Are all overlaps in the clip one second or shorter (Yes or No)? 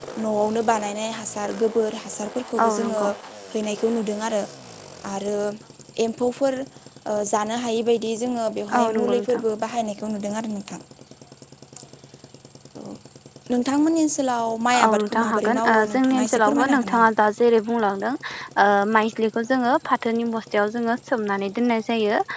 No